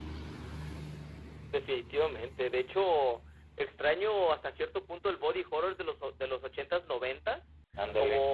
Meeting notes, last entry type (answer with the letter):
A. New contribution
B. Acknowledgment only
B